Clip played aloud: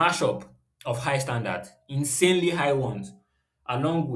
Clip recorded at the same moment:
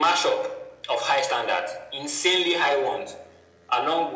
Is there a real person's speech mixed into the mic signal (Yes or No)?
No